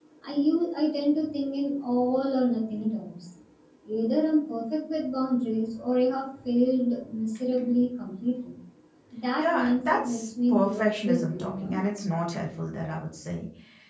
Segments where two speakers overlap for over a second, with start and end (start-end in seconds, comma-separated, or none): 9.4-11.8